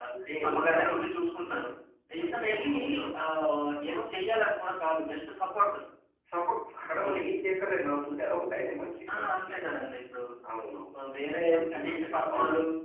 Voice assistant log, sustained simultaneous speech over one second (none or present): present